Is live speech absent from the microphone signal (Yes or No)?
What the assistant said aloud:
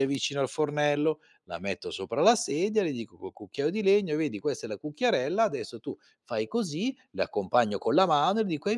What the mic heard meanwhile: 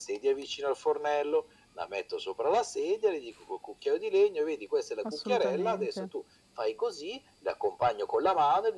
No